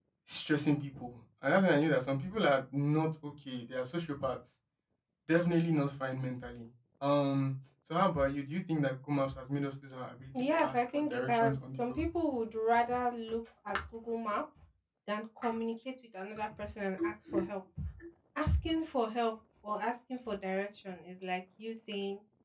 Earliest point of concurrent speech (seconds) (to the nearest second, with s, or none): 10 s